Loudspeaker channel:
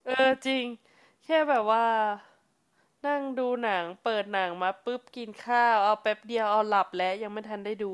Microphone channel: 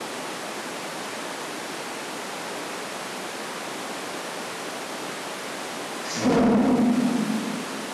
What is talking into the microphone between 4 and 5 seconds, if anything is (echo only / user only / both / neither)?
neither